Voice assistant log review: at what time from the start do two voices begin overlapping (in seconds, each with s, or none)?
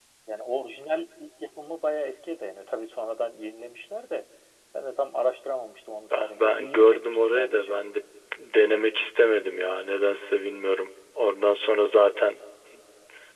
6.1 s